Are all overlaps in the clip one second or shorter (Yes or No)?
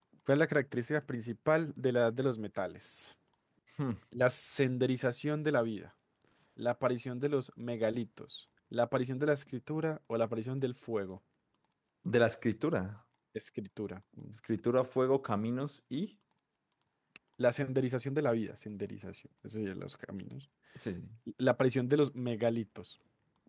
Yes